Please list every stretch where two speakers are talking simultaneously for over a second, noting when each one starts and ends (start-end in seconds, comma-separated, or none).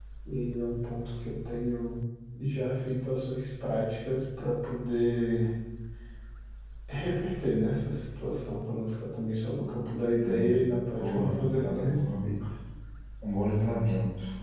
11.0-12.3